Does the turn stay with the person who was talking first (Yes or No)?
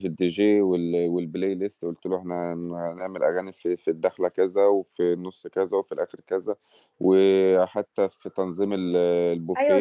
No